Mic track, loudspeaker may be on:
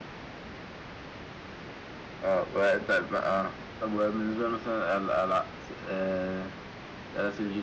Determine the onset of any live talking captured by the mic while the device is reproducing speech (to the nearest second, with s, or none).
none